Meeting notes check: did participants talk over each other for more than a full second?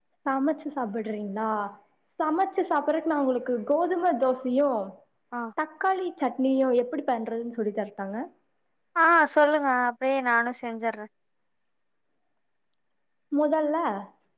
No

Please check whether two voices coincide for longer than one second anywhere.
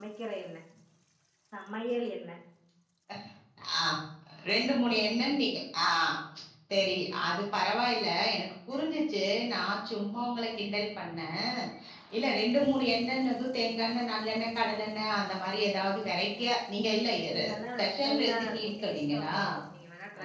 Yes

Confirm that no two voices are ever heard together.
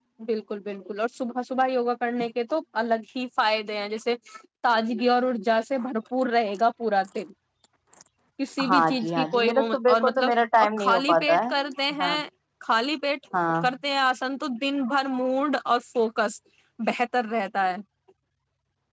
No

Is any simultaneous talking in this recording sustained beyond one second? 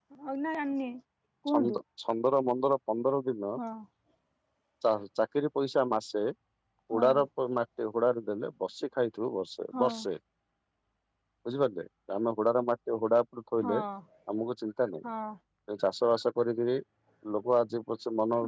No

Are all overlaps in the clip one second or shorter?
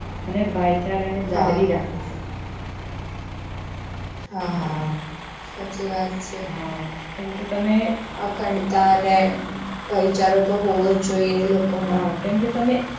Yes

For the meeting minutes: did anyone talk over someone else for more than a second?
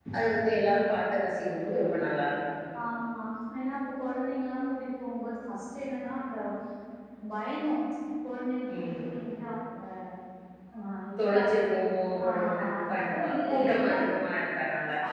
Yes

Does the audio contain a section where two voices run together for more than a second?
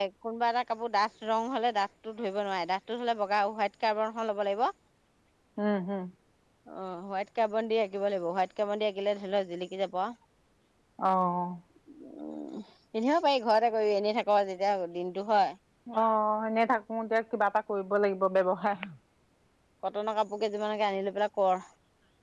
No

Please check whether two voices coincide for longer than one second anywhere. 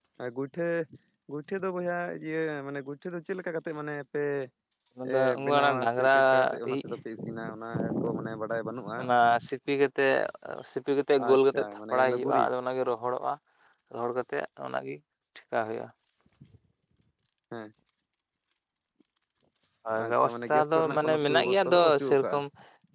Yes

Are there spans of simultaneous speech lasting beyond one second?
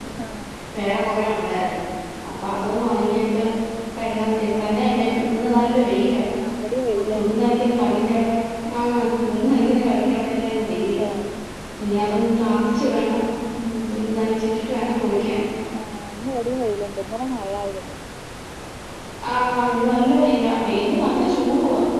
No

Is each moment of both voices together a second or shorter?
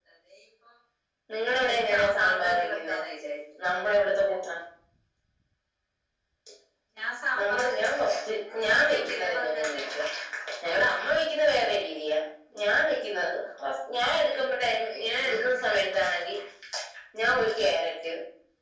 No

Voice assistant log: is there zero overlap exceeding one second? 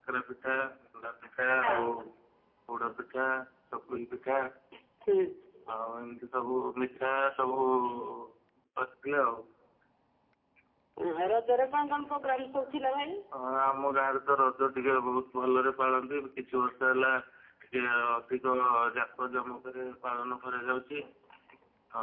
Yes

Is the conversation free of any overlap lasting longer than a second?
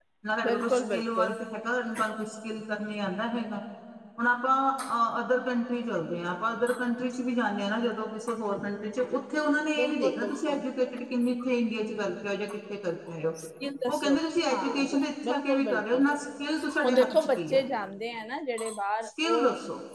No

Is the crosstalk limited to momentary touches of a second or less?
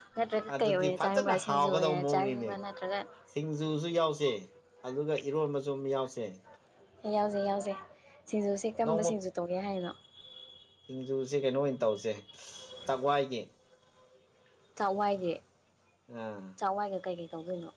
No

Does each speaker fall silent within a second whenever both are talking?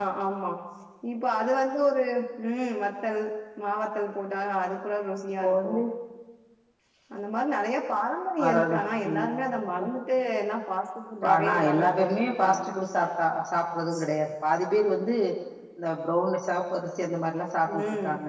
No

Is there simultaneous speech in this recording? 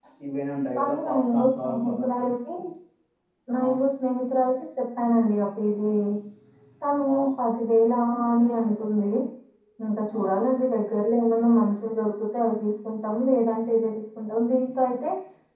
Yes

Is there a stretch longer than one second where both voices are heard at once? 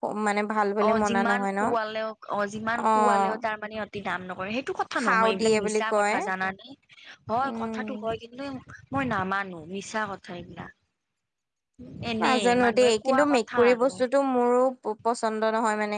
Yes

